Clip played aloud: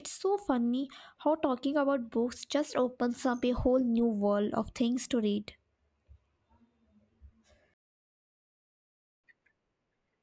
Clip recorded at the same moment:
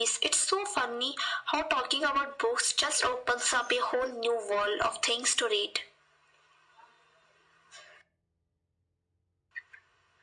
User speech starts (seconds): none

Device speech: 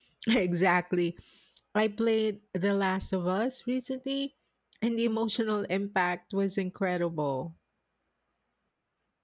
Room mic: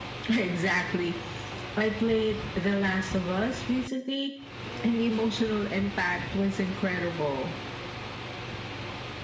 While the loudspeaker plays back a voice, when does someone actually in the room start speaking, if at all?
none

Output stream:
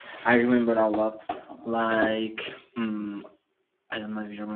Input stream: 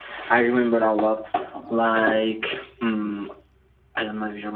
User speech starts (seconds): none

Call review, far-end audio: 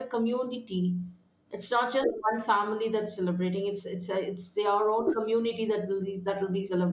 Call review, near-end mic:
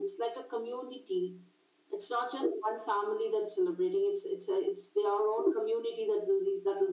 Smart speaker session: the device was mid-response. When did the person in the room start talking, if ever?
none

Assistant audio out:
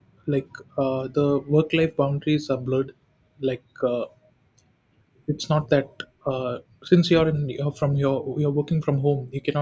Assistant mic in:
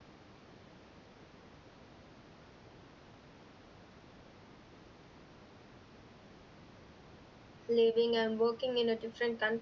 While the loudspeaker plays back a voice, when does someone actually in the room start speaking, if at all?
7.7 s

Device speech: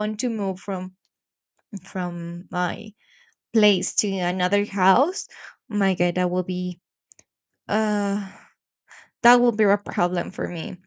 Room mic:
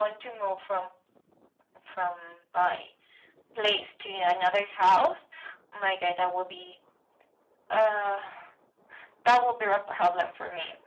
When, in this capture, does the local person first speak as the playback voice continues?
none

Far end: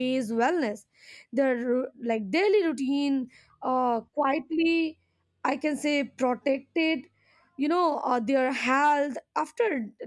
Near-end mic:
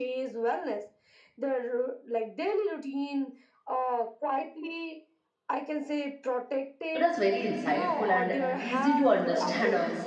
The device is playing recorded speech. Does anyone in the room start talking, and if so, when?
6.9 s

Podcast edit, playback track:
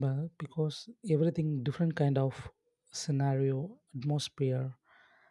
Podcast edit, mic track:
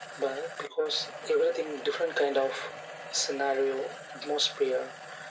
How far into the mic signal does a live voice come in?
none

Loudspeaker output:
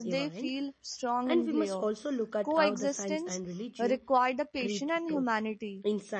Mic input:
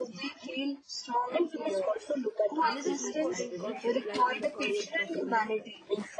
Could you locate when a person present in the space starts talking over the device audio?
2.6 s

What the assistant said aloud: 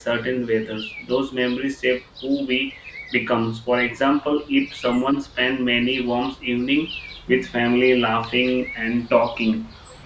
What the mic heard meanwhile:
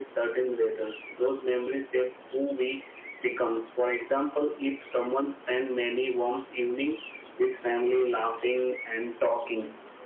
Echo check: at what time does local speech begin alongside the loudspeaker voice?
none

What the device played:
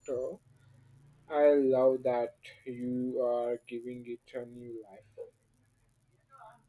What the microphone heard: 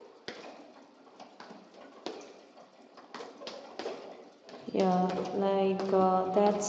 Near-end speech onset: 4.7 s

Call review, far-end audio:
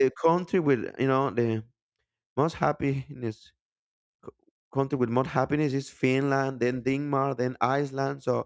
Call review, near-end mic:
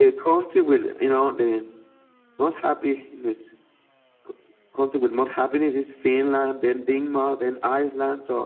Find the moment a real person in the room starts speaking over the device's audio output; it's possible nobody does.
none

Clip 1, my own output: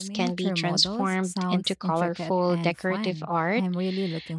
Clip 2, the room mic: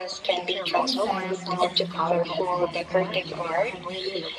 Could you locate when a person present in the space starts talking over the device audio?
0.8 s

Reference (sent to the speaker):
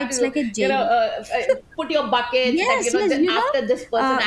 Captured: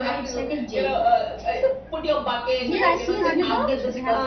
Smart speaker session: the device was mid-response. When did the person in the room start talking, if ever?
2.6 s

